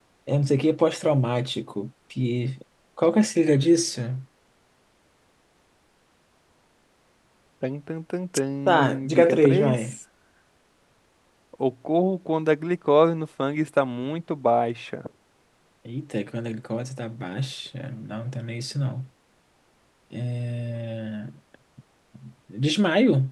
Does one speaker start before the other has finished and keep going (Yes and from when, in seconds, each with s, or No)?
Yes, from 8.7 s